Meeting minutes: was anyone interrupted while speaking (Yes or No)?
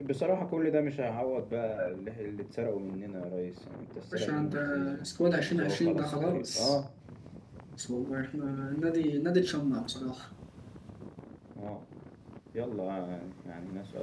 Yes